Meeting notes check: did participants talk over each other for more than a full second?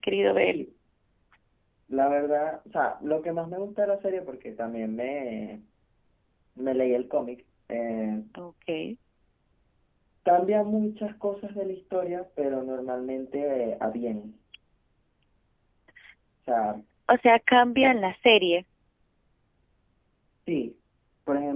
No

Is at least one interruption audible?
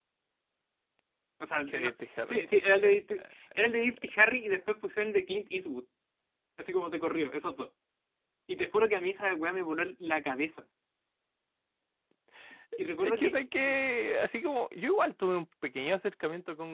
Yes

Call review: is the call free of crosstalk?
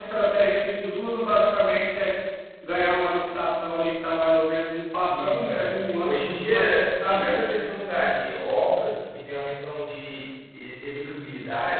No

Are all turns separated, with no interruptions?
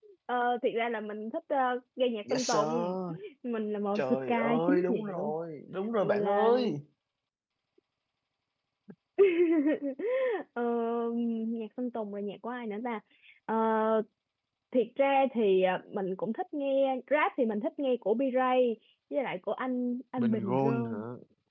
No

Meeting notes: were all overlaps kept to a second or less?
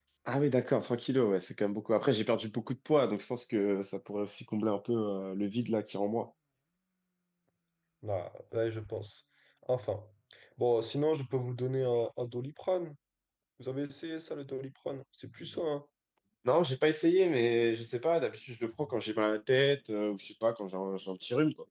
Yes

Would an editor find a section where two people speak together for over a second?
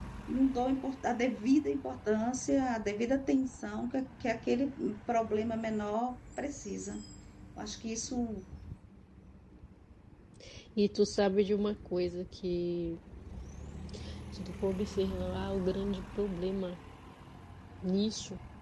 No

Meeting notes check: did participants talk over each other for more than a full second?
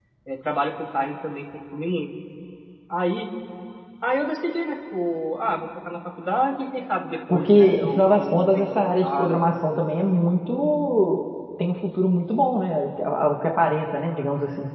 Yes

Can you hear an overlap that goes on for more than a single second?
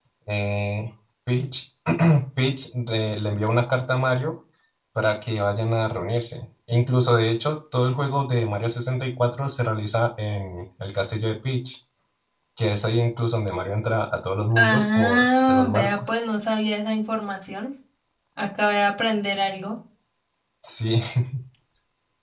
Yes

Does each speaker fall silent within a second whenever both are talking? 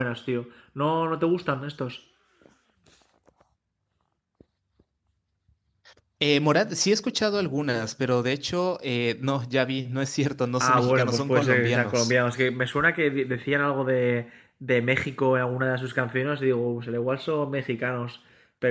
No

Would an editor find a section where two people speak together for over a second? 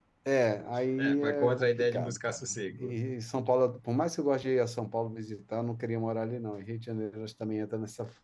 Yes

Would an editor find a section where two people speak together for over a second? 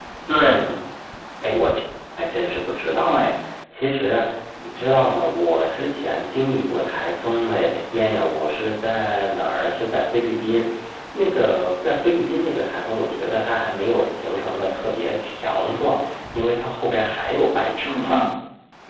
No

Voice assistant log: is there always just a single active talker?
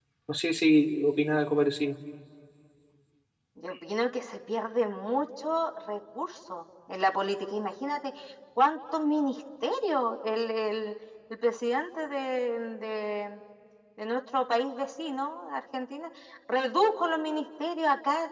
Yes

